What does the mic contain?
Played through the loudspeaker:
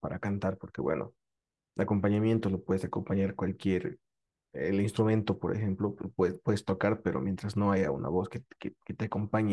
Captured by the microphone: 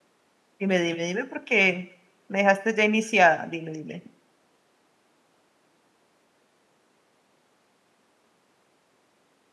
user only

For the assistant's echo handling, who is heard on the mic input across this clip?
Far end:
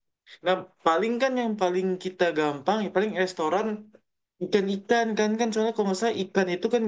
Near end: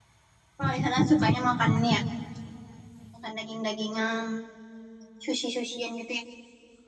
user only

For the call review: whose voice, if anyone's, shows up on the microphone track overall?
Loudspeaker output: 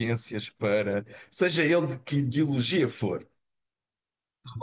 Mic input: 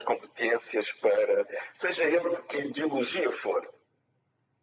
echo only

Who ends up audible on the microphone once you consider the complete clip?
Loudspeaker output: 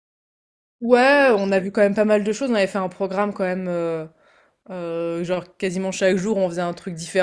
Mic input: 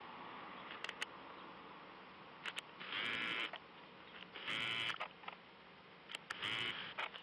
neither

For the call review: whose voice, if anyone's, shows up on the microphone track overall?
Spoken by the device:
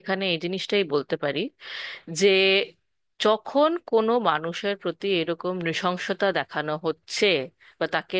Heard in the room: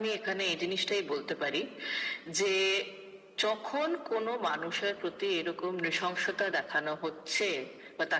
echo only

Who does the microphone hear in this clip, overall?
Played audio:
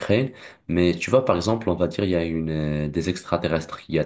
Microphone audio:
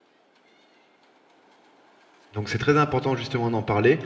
user only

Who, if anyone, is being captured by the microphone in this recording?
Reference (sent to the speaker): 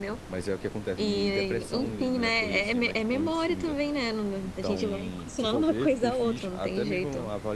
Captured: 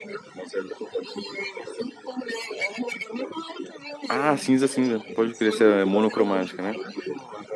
both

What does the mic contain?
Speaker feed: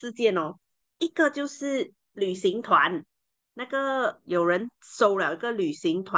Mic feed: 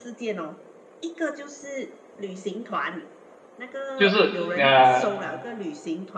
both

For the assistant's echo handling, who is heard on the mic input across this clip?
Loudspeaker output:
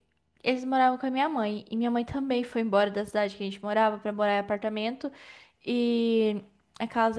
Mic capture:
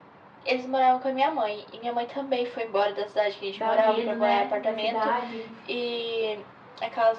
both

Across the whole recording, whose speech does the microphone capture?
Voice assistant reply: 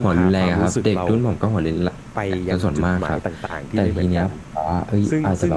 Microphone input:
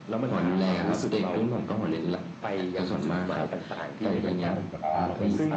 both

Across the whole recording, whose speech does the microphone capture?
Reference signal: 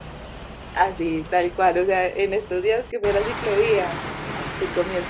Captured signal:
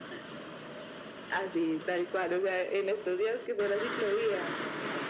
echo only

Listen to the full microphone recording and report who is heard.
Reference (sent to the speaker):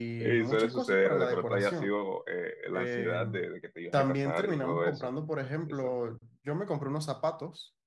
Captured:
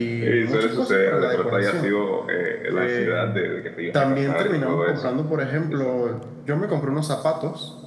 echo only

